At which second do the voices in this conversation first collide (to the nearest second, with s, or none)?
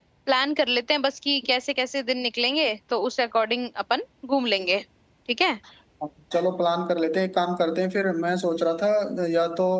none